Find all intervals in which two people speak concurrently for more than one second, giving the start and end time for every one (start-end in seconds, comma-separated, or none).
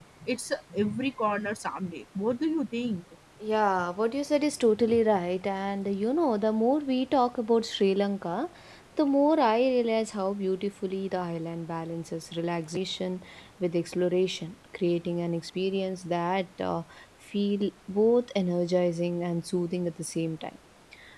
none